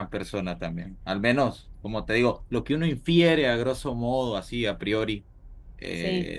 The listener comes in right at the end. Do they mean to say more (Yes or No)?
No